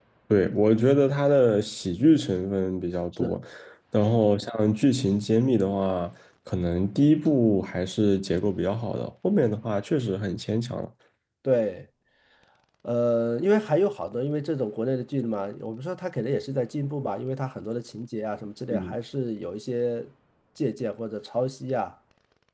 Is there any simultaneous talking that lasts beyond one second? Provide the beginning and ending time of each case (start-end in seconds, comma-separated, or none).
none